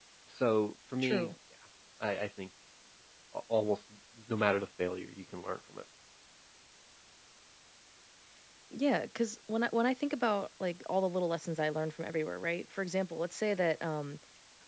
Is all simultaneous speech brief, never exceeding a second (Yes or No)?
Yes